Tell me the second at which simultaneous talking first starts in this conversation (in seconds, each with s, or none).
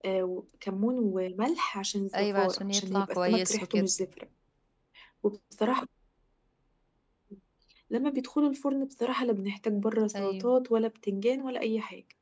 2.2 s